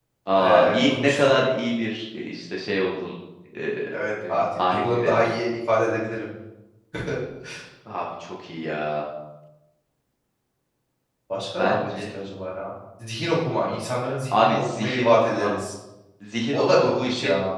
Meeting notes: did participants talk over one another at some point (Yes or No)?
Yes